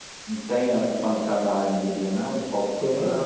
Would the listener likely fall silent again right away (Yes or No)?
No